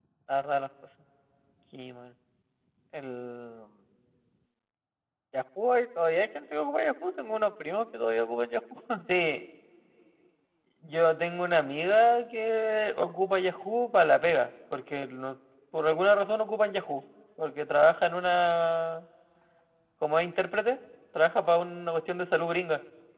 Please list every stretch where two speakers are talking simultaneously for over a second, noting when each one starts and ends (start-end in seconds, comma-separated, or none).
none